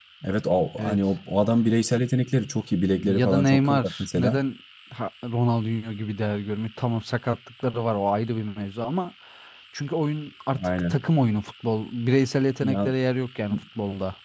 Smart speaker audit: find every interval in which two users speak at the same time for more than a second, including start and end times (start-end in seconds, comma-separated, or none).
3.0-4.4